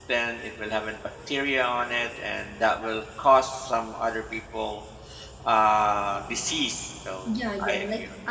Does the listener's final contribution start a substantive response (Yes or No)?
Yes